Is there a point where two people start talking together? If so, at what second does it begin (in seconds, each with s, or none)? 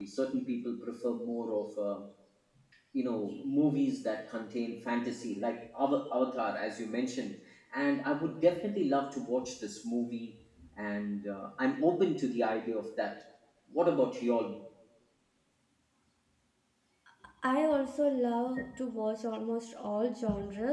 none